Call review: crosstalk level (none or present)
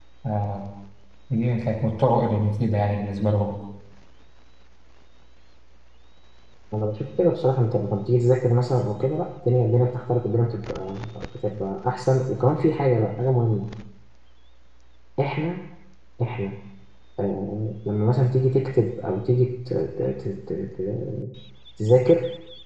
none